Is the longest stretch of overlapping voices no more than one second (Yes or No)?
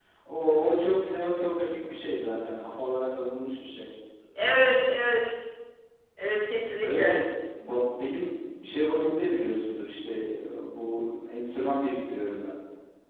Yes